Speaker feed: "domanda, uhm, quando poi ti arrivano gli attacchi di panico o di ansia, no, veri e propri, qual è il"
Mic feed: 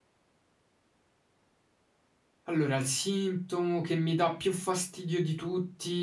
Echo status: none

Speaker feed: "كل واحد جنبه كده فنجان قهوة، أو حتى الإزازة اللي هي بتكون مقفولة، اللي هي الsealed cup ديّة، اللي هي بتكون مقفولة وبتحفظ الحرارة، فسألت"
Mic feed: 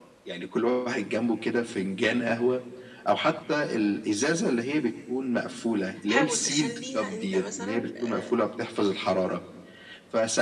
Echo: present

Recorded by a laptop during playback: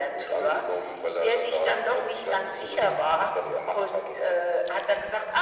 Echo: present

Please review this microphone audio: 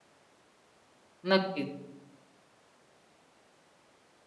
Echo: none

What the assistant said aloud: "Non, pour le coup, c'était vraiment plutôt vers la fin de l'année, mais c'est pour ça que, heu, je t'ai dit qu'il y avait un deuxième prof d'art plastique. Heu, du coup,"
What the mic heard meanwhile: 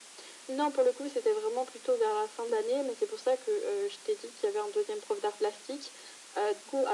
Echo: present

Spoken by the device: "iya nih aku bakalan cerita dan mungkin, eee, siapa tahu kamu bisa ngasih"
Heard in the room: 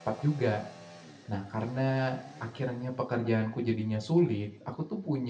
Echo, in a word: none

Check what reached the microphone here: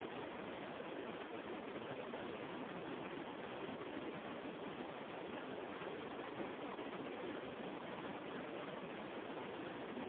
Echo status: none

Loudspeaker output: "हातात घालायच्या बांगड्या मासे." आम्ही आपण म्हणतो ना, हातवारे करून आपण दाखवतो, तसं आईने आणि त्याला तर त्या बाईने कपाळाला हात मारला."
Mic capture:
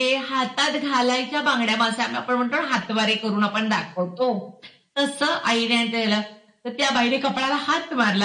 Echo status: present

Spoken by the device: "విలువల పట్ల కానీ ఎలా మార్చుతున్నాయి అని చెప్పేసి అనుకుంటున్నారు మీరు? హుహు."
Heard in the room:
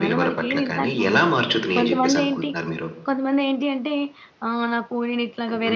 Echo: present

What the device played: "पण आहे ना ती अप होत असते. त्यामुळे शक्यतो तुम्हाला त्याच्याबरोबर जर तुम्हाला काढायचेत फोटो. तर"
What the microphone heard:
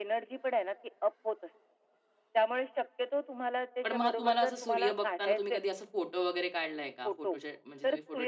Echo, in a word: present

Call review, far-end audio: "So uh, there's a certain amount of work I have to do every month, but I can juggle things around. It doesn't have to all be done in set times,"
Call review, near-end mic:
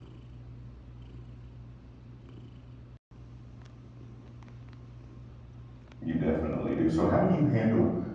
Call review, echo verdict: none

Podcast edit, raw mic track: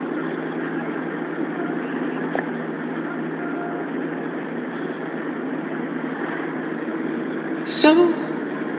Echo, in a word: none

